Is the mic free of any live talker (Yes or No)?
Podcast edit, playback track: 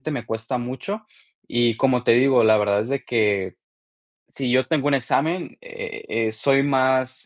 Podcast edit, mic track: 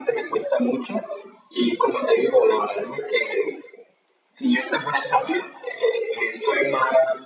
Yes